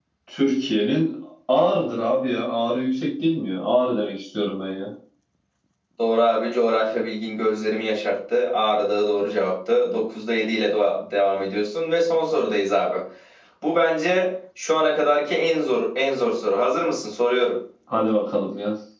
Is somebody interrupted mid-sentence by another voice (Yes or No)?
No